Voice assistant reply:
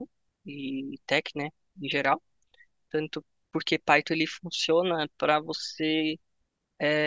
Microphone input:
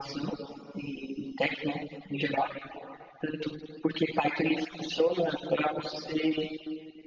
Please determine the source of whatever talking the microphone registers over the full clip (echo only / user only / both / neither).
echo only